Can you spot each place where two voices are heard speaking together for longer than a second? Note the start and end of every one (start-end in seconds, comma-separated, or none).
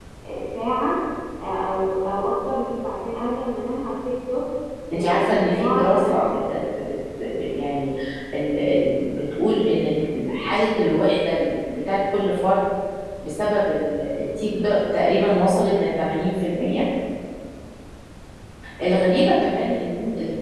4.9-6.6